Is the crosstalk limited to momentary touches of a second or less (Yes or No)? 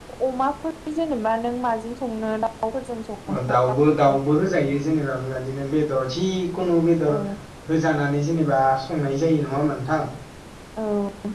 Yes